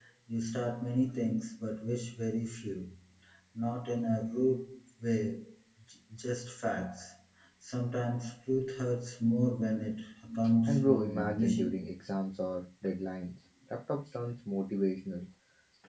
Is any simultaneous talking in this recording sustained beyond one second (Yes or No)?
Yes